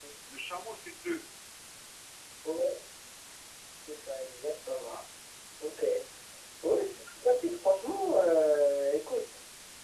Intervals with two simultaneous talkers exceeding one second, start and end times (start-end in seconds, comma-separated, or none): none